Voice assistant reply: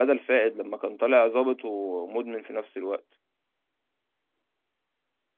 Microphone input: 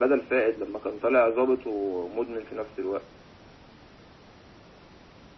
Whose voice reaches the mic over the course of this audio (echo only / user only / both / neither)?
echo only